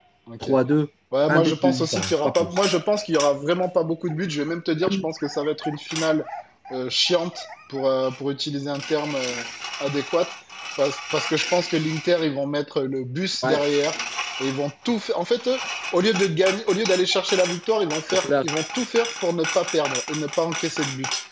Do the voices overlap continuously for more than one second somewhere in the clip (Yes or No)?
Yes